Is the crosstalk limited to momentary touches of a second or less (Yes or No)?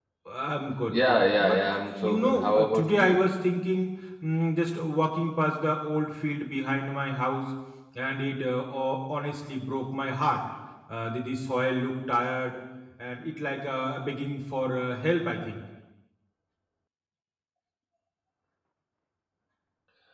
No